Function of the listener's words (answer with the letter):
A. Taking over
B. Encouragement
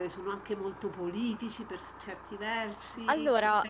B